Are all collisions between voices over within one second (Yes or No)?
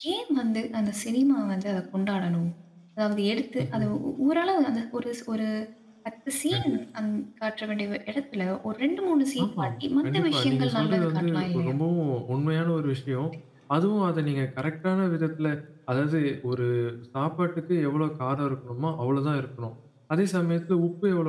No